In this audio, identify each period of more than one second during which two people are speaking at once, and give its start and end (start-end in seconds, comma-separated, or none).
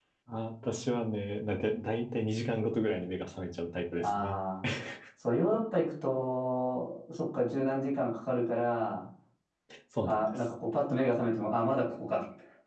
none